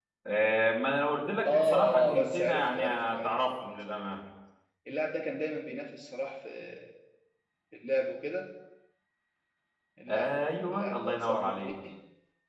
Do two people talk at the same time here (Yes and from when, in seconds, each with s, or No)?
Yes, from 1.5 s